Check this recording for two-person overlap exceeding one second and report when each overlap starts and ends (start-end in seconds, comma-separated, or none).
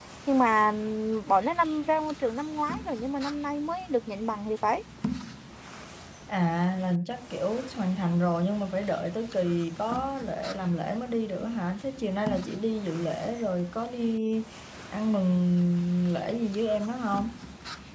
none